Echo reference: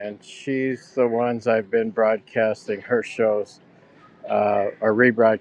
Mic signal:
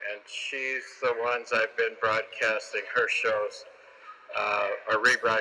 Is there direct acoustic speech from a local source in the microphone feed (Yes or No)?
No